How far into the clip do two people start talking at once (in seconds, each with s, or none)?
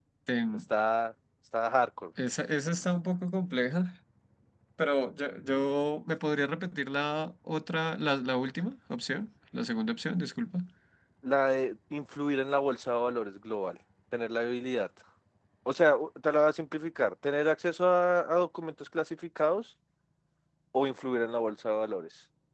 none